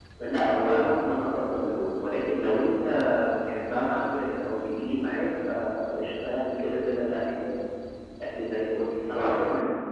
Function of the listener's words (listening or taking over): listening